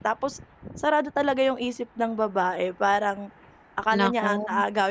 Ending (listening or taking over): listening